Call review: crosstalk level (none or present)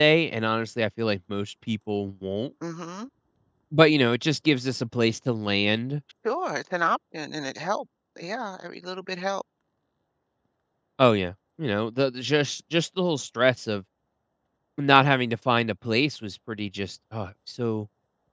none